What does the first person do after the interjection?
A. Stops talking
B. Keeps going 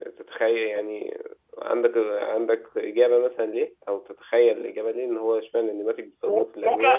A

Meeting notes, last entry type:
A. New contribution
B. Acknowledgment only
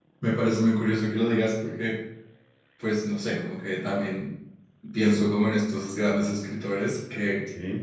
B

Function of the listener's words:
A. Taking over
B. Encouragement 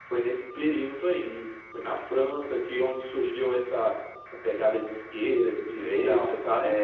A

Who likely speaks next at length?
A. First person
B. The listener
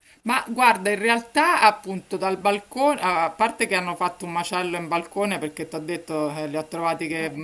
A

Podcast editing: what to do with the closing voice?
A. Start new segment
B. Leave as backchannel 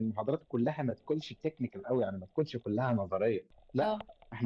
B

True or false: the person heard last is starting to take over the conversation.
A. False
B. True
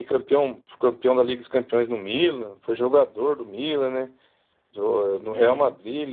A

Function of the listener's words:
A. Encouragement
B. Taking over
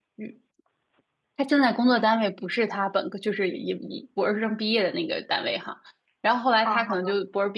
A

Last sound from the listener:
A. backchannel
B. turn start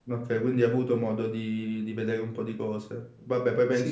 A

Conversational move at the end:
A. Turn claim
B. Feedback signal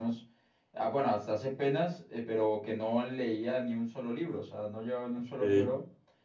B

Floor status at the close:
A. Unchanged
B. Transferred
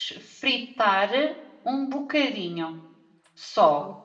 B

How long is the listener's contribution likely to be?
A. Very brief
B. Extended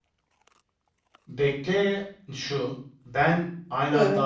A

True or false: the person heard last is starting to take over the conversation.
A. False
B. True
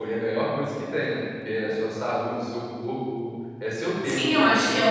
B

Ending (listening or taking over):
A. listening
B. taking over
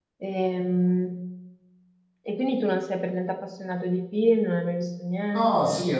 B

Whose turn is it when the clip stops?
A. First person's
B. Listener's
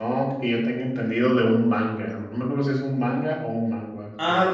B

